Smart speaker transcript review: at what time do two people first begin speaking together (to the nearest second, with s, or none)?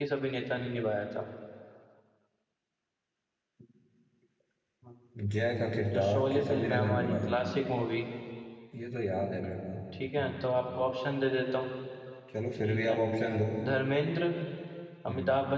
6 s